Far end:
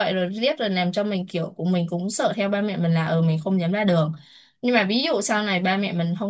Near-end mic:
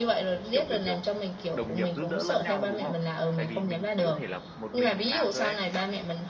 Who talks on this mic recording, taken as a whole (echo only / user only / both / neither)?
both